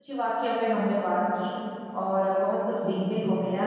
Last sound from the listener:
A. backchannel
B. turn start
A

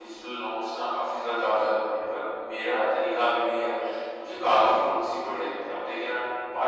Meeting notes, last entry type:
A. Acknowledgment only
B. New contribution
A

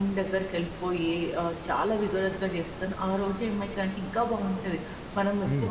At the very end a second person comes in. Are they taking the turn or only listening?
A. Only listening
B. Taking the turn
A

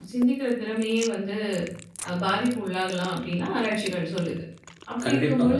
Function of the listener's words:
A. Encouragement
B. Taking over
A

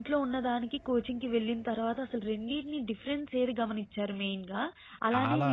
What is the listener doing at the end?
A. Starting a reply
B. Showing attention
B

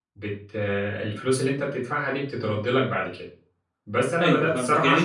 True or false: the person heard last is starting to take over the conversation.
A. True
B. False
A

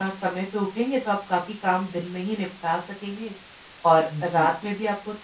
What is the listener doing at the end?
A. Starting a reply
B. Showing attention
B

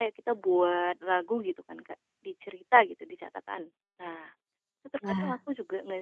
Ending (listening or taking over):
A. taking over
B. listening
B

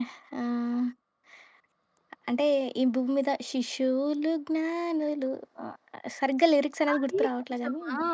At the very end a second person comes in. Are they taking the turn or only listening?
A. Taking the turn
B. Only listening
A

